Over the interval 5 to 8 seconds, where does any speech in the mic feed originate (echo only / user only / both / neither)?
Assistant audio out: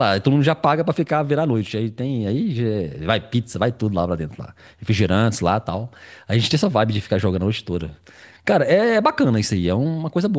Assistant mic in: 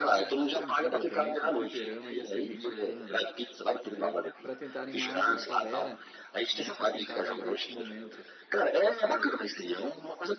both